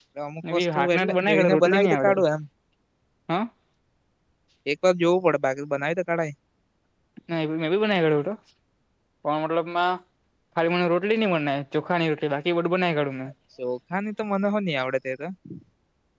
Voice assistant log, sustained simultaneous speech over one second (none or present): present